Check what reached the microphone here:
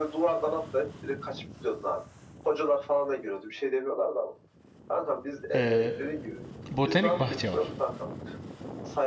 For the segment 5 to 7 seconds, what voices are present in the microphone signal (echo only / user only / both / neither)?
both